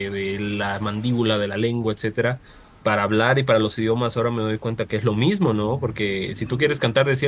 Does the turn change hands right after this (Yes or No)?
No